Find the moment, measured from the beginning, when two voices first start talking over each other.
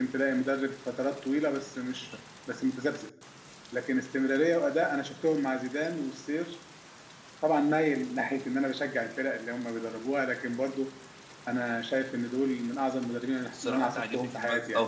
13.5 s

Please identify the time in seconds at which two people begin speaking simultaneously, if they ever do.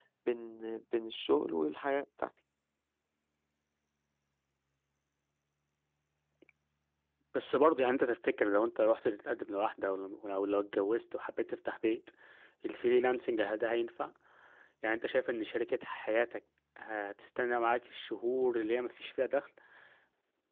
none

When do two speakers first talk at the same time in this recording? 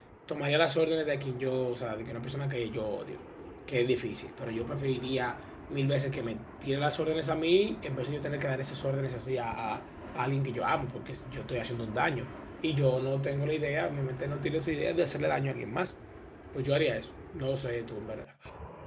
none

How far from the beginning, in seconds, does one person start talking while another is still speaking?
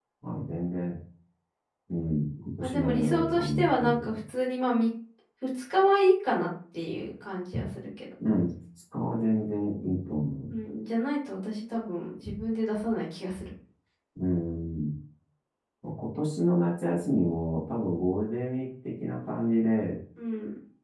2.6 s

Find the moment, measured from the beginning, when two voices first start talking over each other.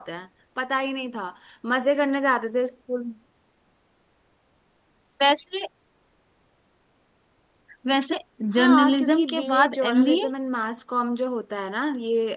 8.6 s

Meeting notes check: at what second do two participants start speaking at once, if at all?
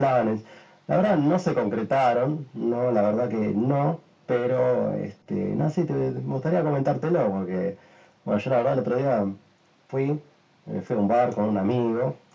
none

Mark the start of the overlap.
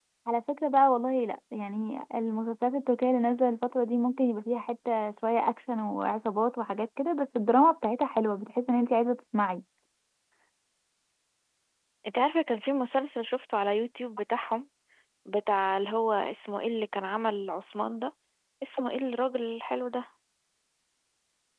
none

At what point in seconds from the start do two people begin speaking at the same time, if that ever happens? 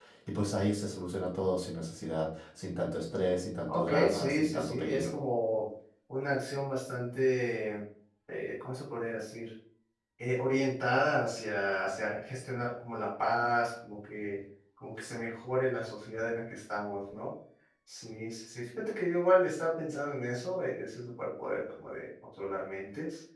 3.7 s

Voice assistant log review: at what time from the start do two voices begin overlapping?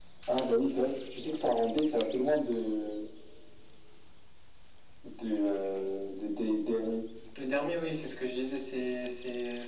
none

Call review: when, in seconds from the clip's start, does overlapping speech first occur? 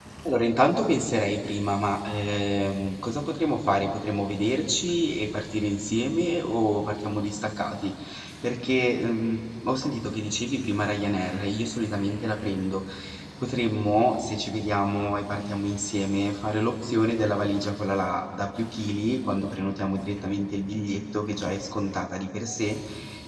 none

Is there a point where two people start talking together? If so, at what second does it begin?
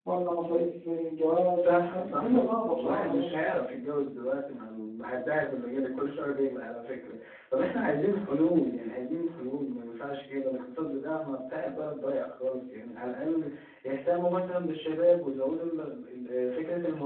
1.6 s

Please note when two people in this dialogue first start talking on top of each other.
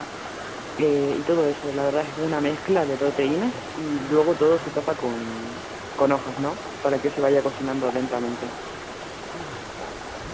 none

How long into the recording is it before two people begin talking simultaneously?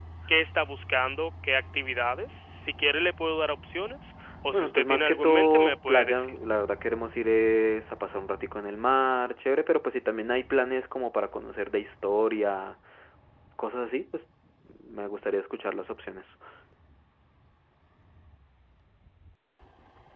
4.5 s

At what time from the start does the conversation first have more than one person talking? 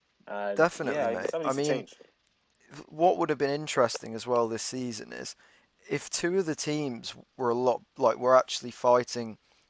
0.6 s

